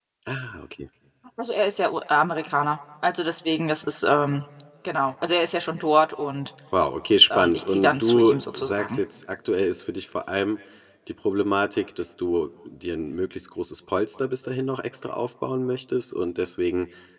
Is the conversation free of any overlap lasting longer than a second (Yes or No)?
No